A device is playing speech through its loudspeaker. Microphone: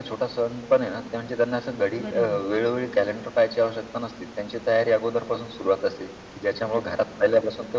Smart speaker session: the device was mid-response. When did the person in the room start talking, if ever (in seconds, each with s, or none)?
2.0 s